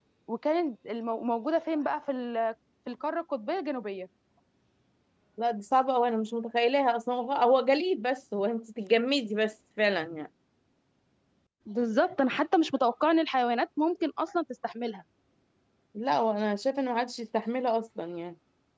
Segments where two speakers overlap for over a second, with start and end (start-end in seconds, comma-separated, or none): none